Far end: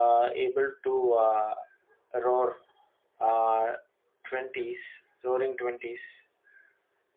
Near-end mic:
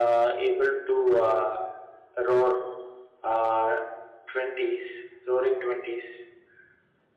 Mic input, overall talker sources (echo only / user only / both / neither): echo only